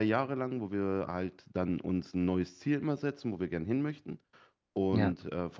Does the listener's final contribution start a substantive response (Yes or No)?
No